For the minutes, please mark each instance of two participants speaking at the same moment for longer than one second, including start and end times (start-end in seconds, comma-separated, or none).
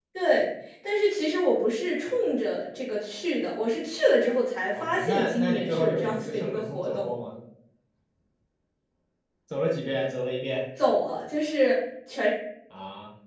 4.8-7.1